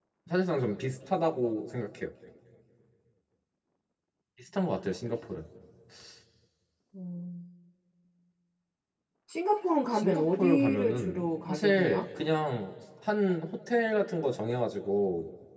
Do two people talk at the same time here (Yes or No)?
Yes